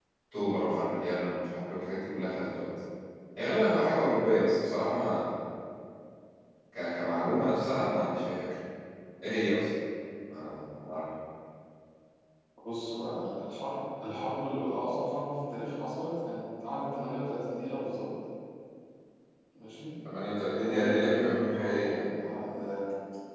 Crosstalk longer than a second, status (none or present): present